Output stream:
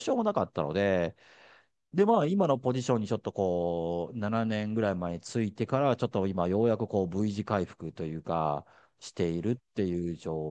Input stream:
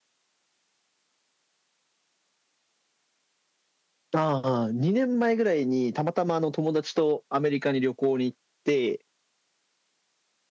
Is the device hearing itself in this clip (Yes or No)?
No